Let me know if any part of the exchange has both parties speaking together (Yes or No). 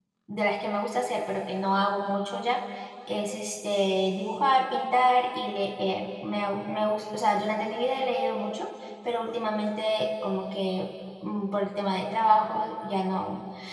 No